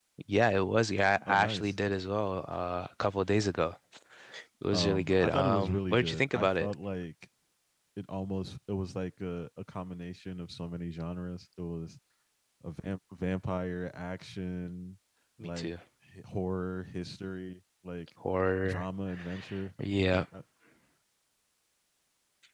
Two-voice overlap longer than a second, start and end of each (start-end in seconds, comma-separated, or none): 4.7-6.7